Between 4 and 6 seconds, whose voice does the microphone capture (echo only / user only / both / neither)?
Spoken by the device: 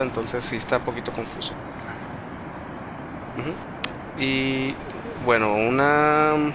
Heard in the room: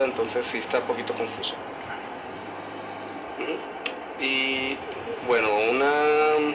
echo only